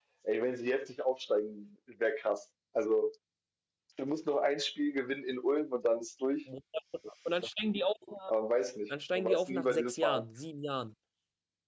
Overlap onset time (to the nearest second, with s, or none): 9 s